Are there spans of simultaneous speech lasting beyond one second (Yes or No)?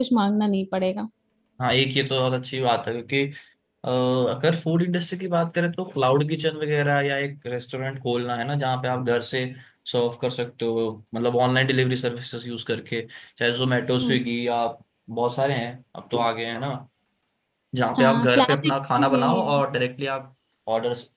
Yes